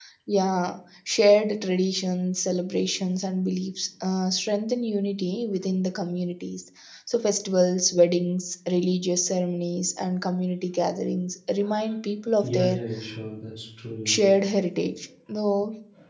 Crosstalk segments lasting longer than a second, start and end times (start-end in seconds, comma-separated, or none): none